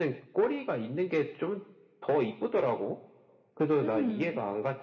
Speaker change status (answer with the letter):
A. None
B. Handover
A